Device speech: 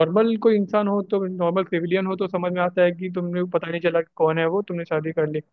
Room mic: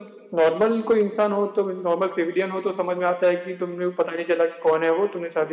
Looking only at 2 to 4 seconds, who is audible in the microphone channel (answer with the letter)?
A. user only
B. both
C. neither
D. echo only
D